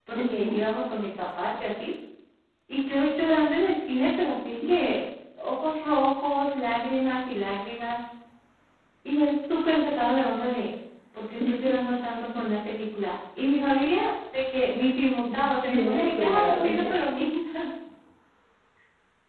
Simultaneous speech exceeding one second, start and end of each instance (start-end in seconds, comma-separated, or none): 15.7-16.9